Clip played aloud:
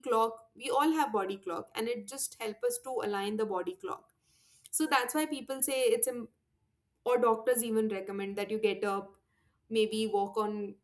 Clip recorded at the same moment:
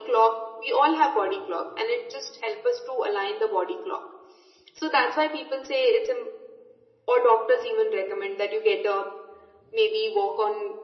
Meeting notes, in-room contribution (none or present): none